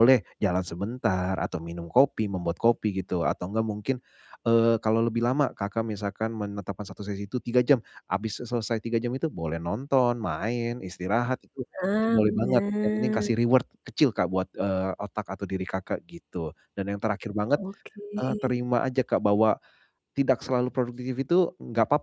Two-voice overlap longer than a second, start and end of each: 12.0-13.3

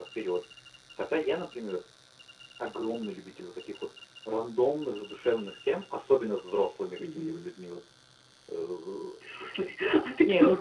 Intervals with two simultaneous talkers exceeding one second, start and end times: none

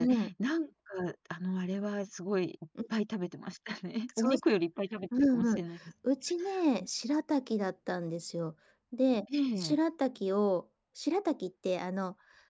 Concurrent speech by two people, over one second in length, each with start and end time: none

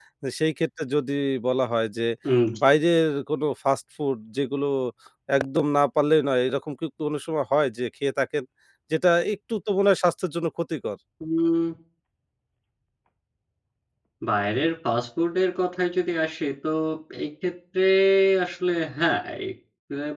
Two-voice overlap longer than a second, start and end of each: none

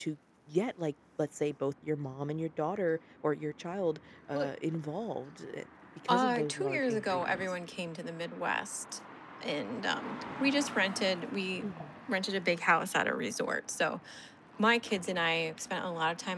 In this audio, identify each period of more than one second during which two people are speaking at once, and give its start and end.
6.1-7.4

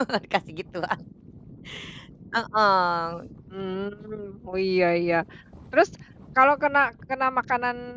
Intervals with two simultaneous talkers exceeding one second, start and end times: none

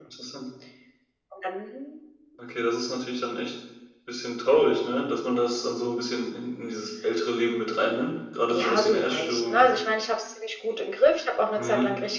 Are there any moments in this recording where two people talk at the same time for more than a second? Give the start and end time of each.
8.5-9.7

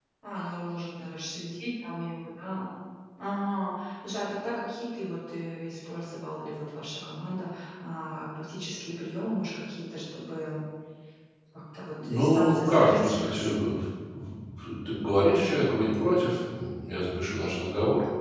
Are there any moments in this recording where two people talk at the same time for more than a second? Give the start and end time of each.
12.1-13.5

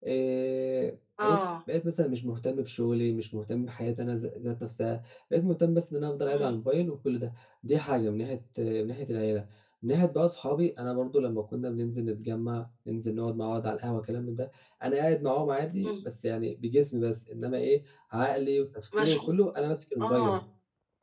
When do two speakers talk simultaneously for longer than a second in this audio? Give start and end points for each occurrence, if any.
none

